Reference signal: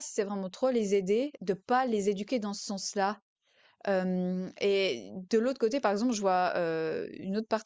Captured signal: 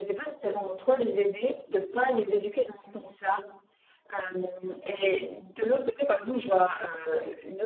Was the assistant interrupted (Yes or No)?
No